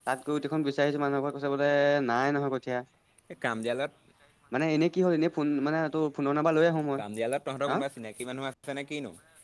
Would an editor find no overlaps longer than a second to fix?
Yes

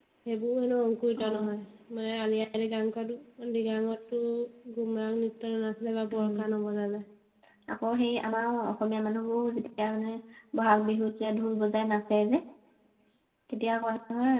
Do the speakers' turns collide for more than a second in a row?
No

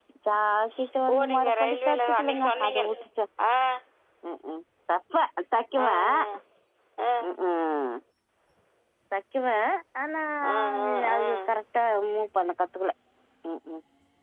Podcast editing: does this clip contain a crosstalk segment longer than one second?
Yes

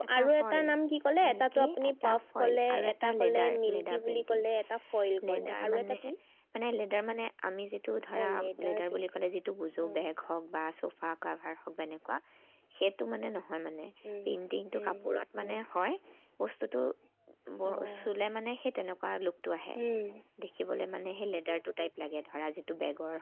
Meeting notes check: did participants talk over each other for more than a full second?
Yes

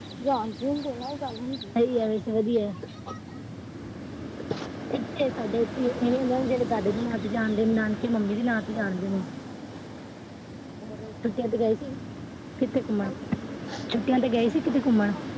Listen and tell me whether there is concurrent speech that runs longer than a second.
No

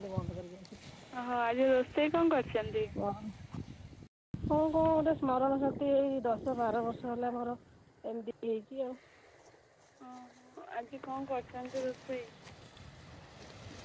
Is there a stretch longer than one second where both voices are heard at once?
No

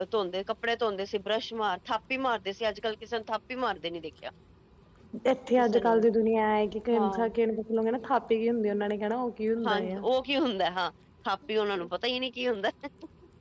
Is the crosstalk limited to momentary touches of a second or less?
Yes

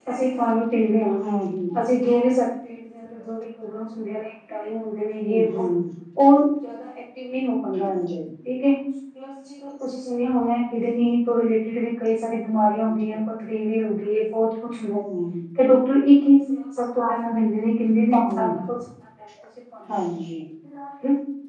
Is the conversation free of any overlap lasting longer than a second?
Yes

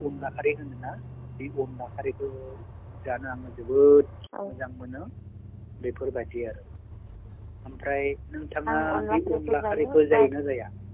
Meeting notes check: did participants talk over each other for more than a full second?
Yes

